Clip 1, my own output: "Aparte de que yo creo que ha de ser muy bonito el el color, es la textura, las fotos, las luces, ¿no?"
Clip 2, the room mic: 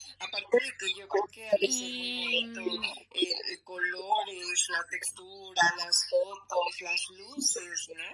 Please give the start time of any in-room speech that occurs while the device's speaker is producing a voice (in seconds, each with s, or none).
1.6 s